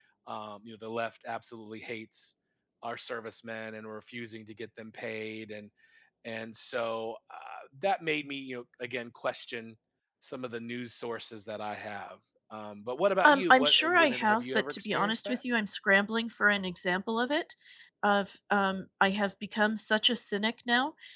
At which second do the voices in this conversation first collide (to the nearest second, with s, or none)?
13 s